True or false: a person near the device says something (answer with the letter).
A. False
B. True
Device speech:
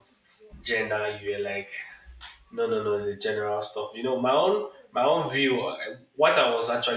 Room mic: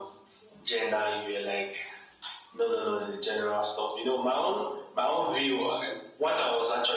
A